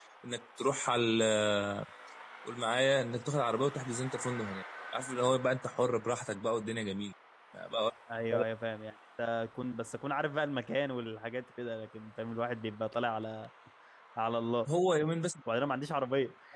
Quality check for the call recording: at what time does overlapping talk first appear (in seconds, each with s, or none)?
none